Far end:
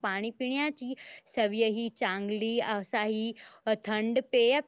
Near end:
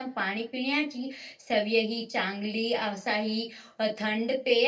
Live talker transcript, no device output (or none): none